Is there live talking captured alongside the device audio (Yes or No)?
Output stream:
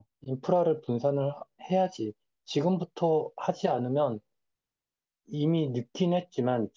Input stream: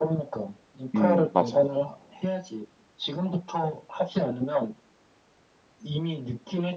Yes